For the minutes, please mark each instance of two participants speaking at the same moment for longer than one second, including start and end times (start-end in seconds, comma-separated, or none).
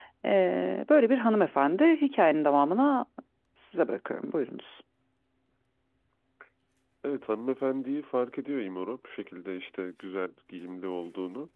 none